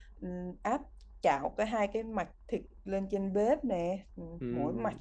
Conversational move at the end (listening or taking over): listening